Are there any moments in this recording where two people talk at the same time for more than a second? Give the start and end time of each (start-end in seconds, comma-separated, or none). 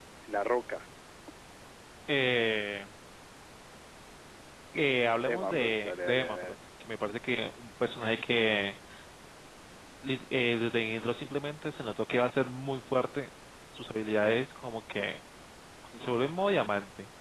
5.2-6.5